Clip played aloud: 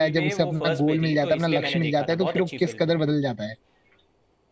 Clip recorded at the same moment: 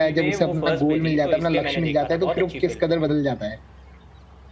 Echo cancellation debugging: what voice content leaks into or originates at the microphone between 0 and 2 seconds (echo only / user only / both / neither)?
echo only